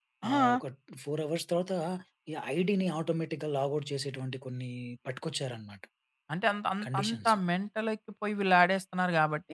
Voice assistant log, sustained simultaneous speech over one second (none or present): none